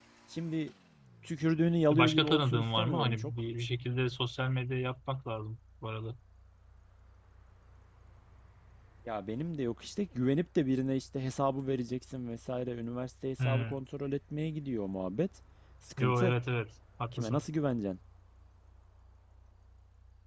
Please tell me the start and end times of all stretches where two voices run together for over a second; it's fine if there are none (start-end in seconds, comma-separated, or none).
1.9-3.3